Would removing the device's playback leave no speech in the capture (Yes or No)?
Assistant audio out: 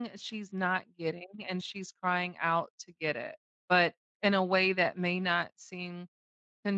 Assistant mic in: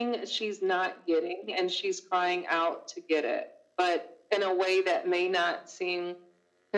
Yes